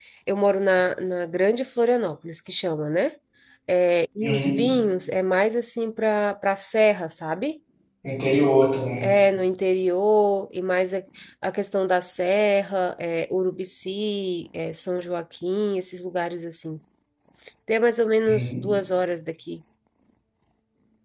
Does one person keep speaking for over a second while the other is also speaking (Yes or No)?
No